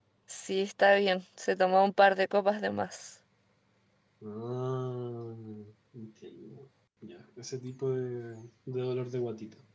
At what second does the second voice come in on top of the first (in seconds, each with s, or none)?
none